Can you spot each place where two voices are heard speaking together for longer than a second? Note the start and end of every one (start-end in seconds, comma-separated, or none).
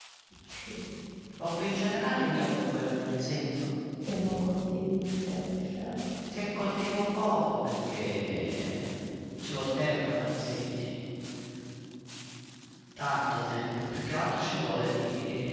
none